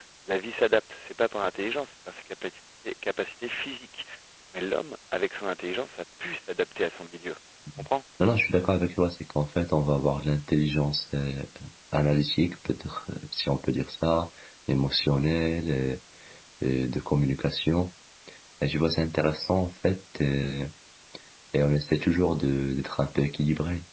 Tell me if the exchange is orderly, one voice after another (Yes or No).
Yes